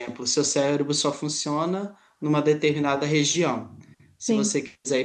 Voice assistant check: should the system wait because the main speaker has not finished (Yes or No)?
Yes